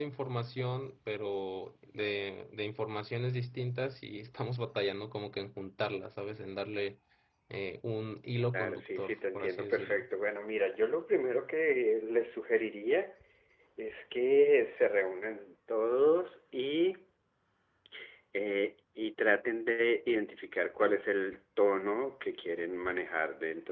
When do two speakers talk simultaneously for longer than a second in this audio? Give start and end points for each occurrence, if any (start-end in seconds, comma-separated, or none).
8.5-10.1